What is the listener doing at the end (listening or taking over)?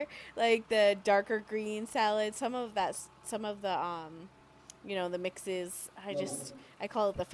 listening